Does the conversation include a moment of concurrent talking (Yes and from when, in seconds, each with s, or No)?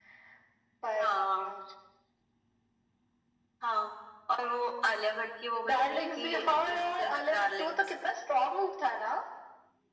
Yes, from 5.6 s